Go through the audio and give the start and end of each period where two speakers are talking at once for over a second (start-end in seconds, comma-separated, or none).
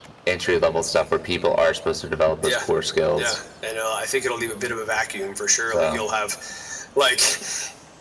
none